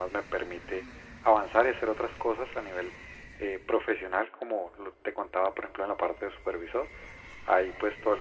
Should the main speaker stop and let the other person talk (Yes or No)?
No